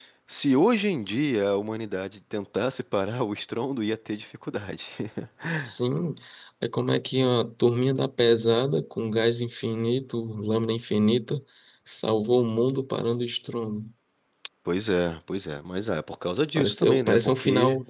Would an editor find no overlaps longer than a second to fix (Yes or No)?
No